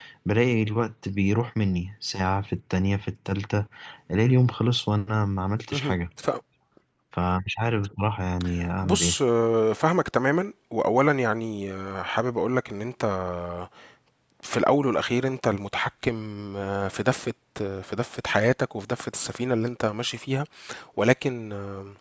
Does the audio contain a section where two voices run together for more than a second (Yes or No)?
No